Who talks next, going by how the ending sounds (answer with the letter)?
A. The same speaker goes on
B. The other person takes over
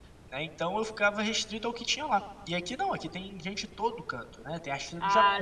A